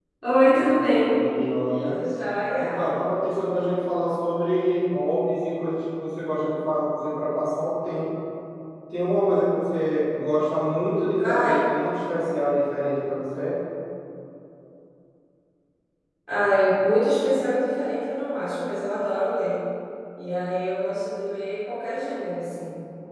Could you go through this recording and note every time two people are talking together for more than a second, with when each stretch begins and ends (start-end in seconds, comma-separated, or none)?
none